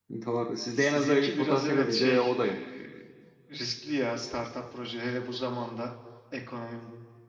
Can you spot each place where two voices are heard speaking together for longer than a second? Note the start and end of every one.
0.7-2.4

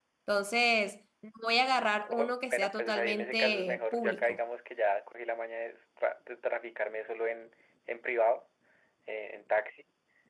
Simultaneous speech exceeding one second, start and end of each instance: 2.1-4.4

